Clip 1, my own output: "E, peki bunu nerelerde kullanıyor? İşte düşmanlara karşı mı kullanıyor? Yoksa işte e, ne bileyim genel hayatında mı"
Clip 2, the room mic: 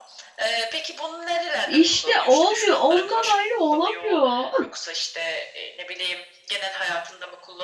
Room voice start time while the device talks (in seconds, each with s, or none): 1.6 s